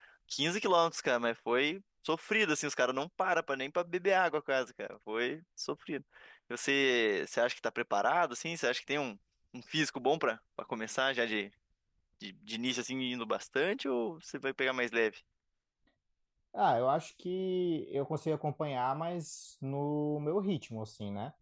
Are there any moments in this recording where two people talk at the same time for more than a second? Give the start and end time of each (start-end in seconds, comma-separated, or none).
none